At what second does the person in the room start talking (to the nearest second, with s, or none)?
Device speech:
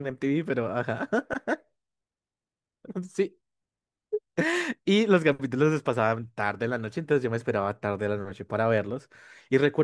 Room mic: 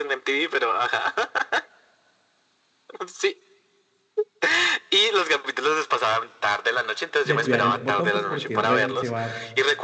7 s